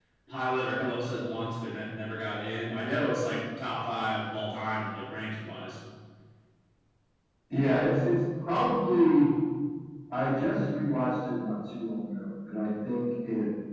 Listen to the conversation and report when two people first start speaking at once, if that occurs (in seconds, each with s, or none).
none